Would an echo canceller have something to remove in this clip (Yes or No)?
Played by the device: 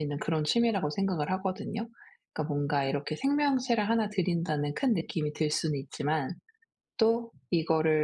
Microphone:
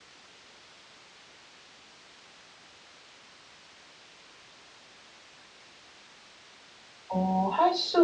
No